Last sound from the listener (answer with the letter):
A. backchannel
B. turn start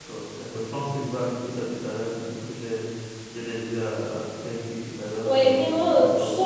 B